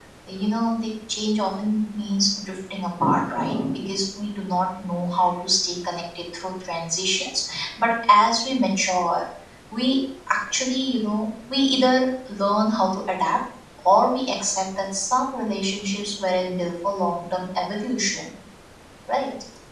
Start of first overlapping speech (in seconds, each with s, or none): none